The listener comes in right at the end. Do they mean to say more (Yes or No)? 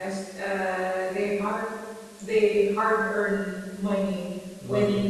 No